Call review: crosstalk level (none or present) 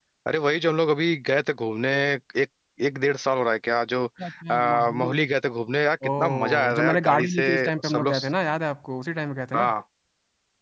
present